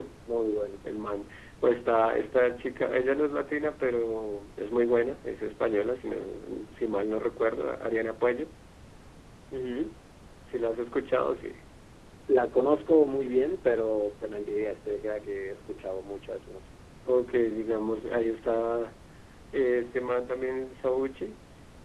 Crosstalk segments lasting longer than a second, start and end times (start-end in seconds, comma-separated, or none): none